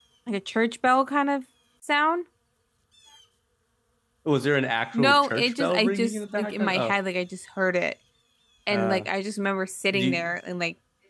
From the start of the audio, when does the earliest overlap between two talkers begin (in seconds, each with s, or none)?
4.9 s